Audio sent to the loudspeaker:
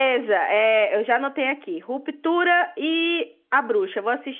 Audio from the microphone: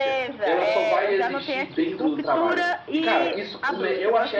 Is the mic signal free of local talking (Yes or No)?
No